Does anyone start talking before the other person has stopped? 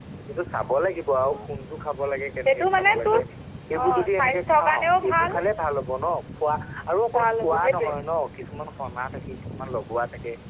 Yes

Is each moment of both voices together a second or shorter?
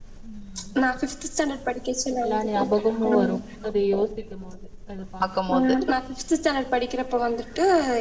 Yes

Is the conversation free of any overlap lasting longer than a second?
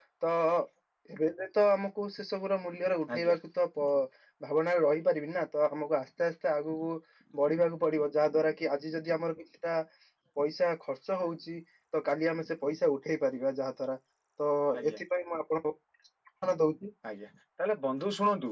Yes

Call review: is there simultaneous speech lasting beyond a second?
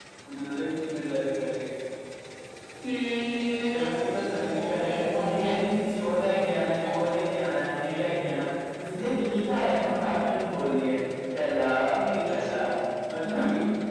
Yes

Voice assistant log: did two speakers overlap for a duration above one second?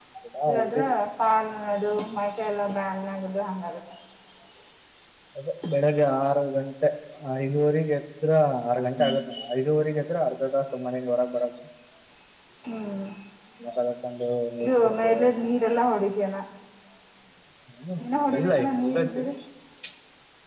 Yes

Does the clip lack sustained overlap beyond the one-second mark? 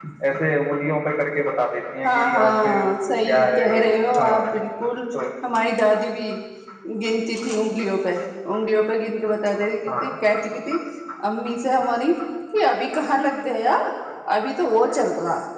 No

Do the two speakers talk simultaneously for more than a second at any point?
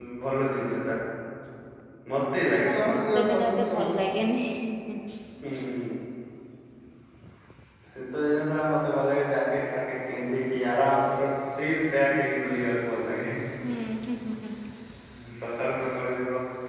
Yes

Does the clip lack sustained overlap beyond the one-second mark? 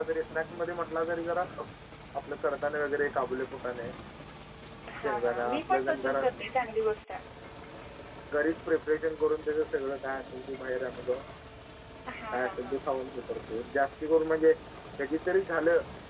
No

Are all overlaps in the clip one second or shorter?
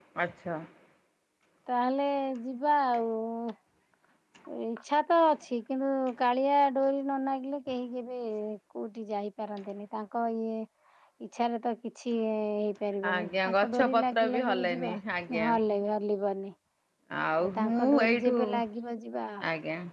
No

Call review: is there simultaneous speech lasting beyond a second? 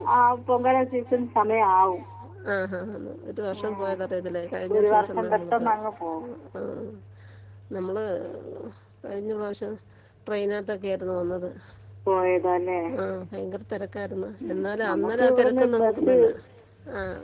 Yes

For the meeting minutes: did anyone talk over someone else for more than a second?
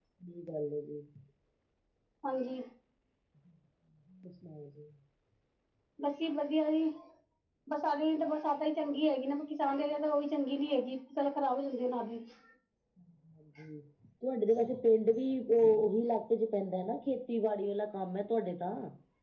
No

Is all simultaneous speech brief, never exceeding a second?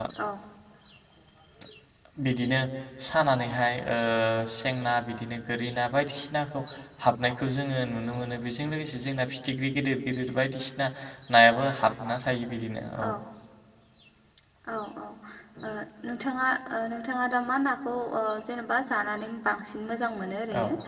Yes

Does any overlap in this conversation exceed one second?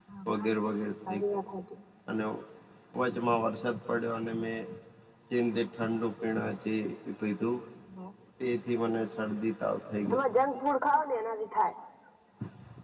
No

